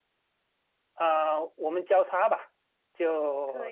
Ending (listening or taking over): listening